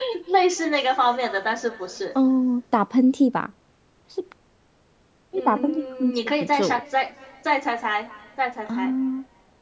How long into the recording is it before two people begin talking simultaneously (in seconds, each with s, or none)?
5.3 s